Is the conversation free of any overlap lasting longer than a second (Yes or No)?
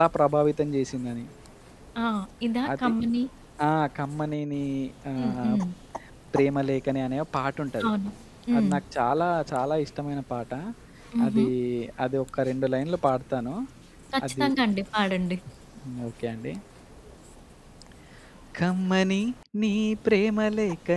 Yes